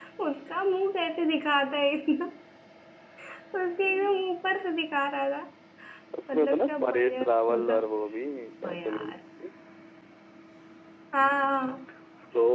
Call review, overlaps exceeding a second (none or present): present